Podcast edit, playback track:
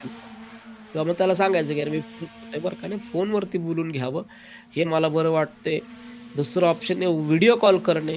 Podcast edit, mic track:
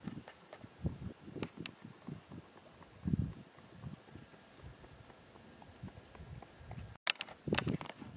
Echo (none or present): none